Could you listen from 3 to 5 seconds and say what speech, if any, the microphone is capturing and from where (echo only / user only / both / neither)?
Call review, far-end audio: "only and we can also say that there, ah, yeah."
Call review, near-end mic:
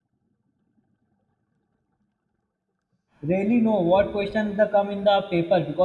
user only